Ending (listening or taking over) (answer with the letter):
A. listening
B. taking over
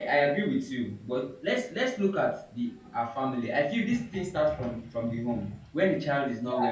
B